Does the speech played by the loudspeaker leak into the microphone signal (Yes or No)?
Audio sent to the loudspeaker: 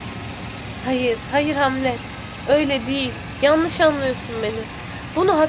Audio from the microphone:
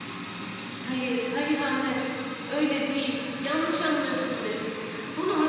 Yes